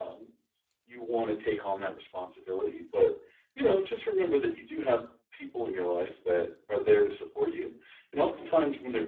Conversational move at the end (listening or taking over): listening